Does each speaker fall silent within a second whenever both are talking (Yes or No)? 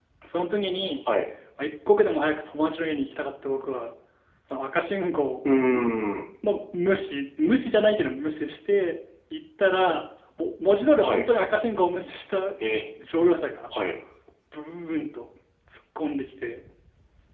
Yes